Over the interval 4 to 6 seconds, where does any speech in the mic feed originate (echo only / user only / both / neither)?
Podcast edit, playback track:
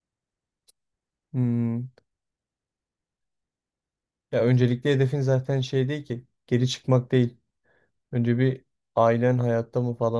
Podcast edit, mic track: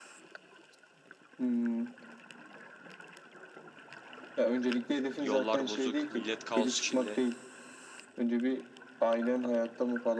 both